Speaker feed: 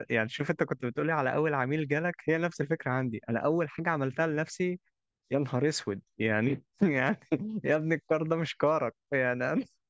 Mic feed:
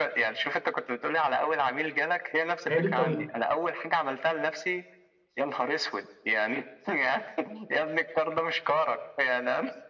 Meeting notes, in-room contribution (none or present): present